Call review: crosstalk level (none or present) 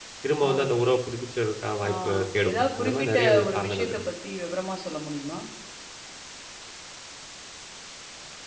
present